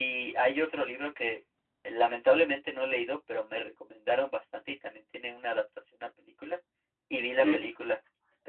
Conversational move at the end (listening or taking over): listening